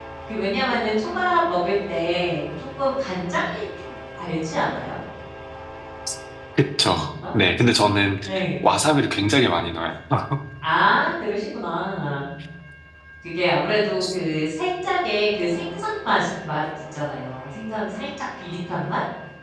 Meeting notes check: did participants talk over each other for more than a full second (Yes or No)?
No